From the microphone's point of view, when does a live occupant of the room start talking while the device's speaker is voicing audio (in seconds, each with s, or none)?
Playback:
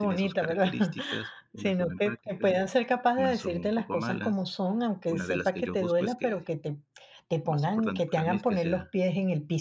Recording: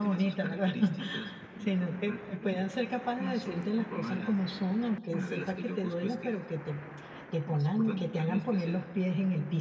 none